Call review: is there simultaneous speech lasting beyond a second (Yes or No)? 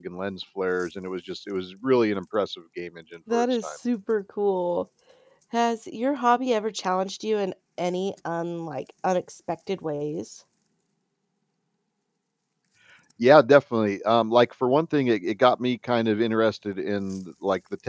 No